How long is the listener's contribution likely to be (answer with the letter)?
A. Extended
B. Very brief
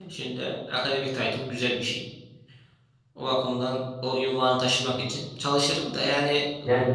A